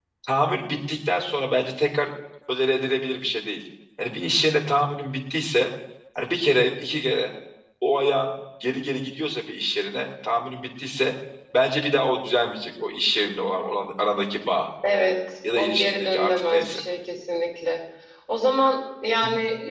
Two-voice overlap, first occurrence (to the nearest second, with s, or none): 16 s